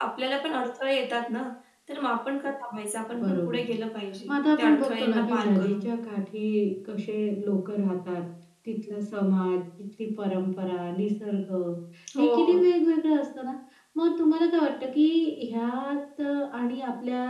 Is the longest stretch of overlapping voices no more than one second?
No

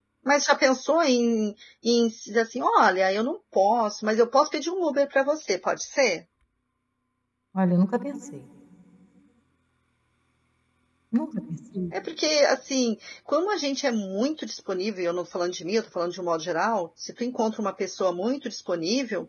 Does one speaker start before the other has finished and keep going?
No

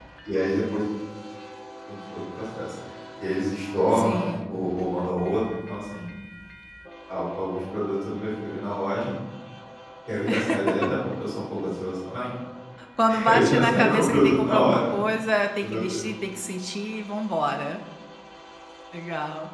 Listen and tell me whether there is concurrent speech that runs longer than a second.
Yes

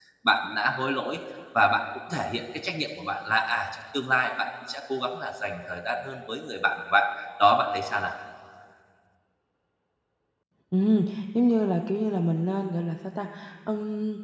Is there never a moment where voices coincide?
Yes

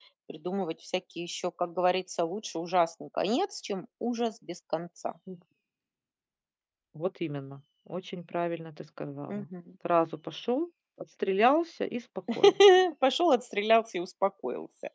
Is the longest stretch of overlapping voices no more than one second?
Yes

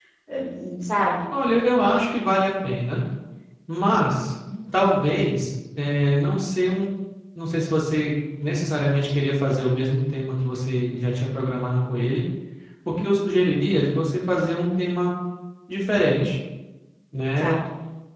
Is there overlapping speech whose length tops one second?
No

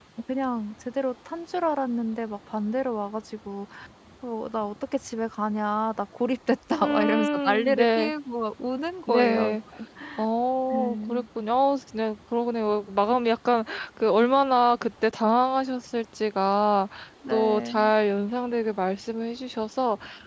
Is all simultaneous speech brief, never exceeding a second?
No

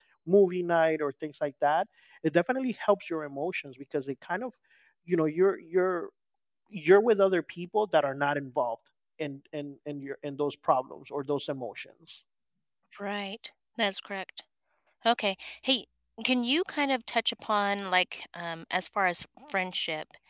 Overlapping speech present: No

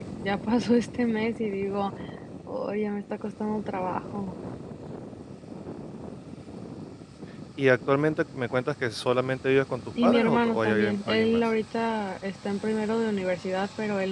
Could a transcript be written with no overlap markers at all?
No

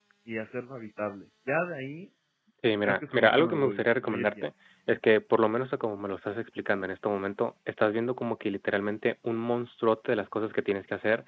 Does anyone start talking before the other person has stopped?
Yes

